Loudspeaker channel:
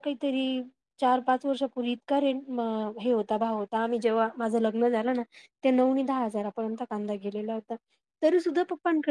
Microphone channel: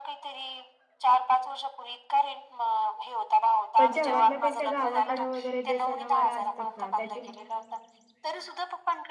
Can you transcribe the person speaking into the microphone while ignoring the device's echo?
पण शहरातल्यापेक्षा गावाकड वगैरे जे सणवार असतात ना त्याचे

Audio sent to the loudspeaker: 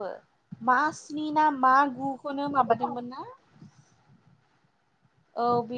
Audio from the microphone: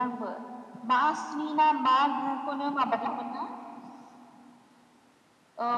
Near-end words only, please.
none

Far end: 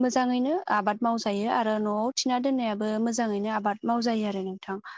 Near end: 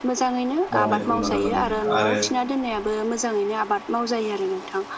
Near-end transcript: मावनायखौ नुनो मोनो आरो

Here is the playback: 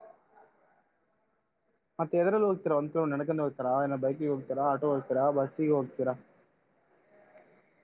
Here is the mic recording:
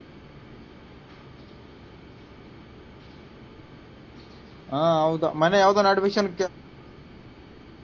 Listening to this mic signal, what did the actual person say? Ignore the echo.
ಹಾ ಹೌದಾ ಮನೆ ಯಾವ್ದ ಒಂದು ಅಡ್ಮಿಷನ್

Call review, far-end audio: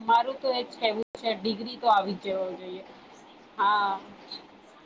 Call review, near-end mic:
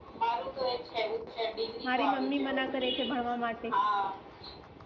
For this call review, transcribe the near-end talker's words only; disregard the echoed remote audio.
મારી મમ્મી મના કરે છે ભણવા માટે--

